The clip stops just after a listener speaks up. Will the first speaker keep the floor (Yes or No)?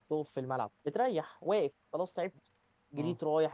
Yes